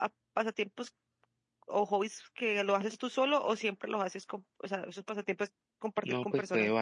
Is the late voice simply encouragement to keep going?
No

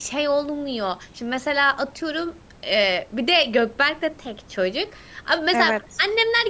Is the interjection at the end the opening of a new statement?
No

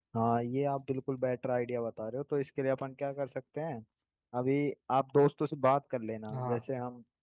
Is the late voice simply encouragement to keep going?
Yes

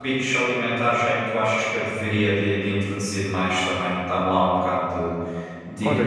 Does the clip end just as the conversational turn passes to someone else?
Yes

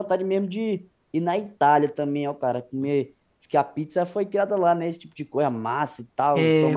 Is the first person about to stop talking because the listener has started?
Yes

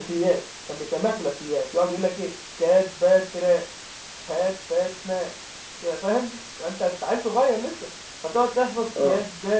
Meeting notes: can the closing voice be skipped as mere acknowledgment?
Yes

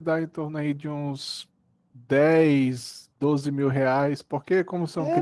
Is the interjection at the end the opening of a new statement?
Yes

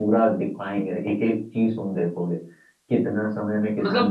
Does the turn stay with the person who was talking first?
No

